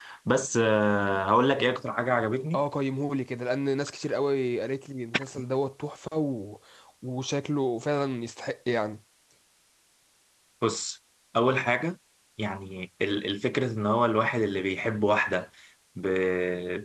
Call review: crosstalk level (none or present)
none